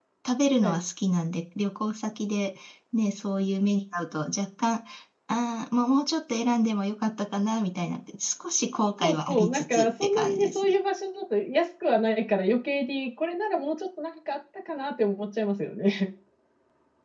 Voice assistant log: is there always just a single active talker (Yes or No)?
No